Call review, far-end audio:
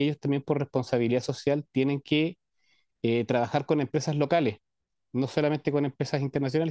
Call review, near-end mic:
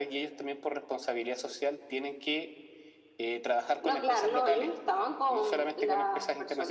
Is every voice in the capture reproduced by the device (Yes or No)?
No